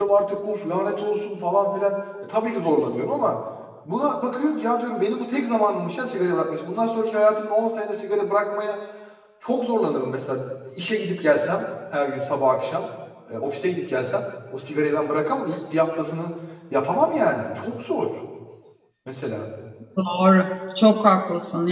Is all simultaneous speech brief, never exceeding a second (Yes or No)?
Yes